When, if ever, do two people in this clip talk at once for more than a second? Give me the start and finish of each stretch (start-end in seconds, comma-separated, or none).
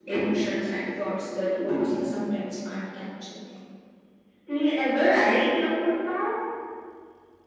none